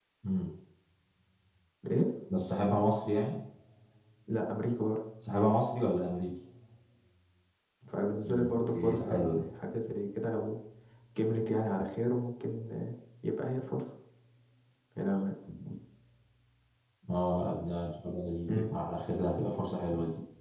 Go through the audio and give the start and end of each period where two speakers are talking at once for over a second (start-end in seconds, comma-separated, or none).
8.2-9.5